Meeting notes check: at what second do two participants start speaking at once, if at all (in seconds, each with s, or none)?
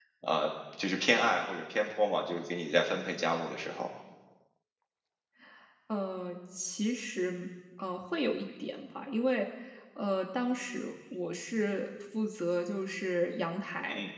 none